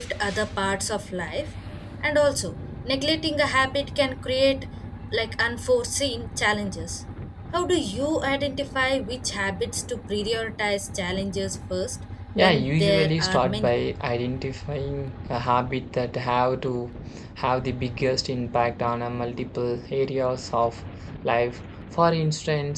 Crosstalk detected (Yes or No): Yes